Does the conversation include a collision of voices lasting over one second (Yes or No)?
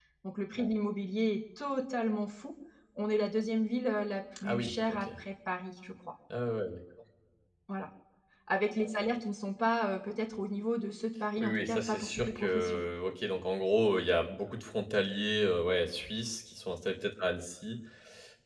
Yes